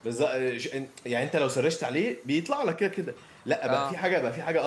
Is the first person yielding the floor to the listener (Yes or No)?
No